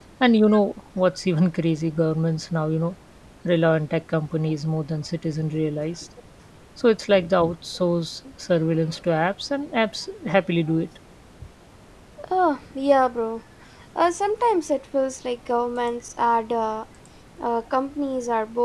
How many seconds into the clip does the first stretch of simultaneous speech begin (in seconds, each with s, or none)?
none